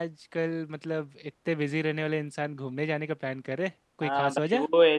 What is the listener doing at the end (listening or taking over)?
taking over